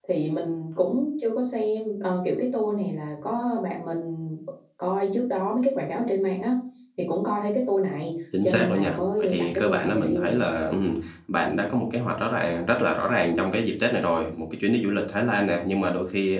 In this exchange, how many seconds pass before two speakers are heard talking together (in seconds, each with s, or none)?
8.3 s